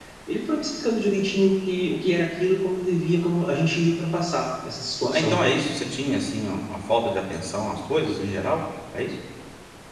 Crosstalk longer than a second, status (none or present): none